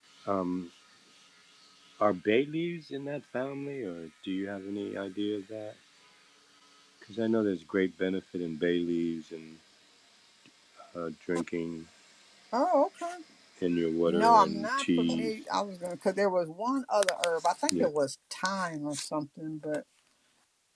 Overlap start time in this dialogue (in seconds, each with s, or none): 14.1 s